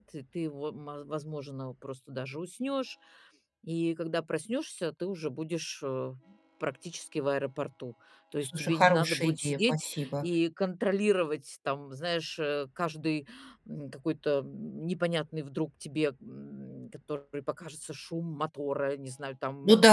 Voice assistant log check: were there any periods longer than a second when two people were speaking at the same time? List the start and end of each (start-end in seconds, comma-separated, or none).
8.4-10.2